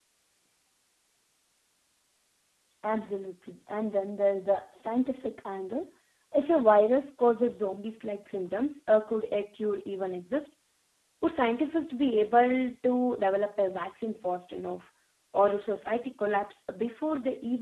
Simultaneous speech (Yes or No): No